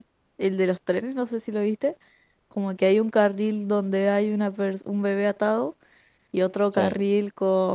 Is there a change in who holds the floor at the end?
No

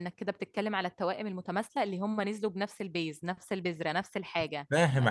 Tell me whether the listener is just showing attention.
Yes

